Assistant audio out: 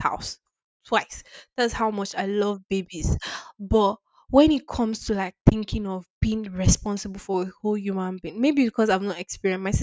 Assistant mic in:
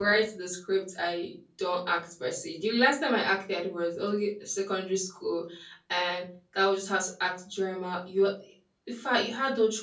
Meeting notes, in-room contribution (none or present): present